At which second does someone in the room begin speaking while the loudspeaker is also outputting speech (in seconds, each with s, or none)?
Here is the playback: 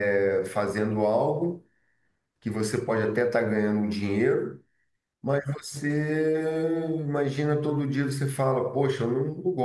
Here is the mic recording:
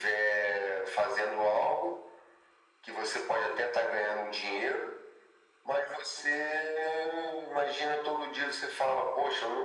none